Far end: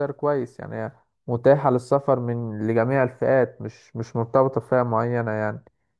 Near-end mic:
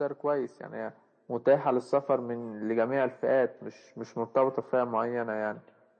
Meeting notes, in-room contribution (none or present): none